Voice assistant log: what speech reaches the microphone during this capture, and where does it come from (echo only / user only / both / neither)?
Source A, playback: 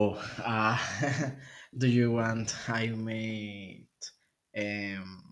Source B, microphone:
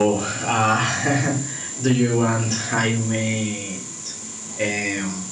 echo only